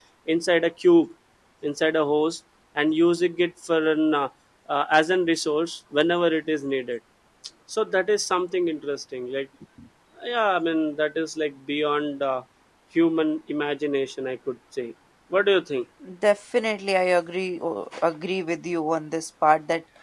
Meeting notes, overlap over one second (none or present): none